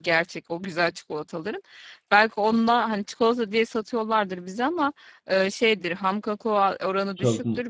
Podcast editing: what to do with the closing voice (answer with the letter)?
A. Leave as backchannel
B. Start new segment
A